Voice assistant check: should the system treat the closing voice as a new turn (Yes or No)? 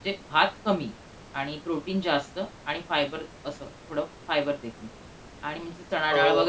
No